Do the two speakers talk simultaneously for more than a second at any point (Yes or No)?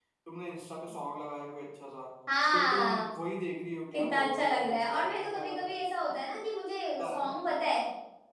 Yes